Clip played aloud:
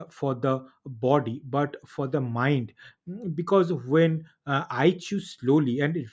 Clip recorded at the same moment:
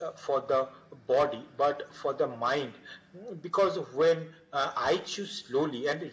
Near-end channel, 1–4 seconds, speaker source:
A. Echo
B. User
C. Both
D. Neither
A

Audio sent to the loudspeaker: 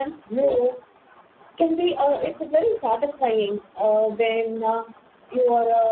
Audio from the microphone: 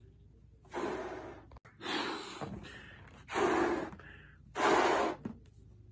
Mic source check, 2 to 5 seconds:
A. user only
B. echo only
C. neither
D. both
C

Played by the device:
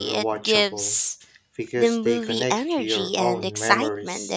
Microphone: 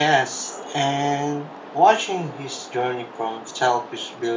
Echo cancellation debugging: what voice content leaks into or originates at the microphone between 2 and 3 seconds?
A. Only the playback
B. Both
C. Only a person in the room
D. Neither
C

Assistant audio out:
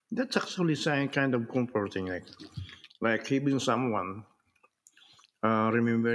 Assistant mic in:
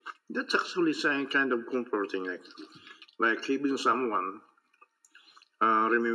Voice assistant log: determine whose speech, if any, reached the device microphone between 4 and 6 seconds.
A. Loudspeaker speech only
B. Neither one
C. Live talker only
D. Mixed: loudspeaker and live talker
A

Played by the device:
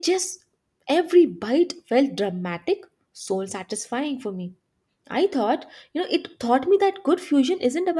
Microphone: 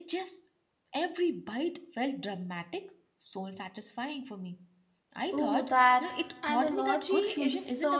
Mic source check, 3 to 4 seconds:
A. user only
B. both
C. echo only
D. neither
C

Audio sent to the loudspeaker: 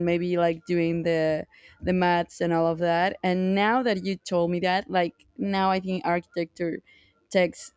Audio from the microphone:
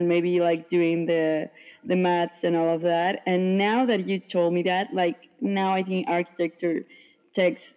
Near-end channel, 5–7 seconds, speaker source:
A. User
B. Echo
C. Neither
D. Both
B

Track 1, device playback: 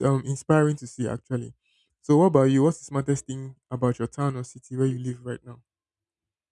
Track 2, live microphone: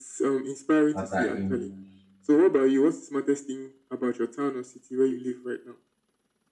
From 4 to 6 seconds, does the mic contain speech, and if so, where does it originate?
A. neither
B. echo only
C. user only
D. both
B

